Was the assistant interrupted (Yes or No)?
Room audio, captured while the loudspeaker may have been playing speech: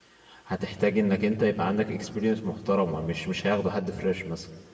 Yes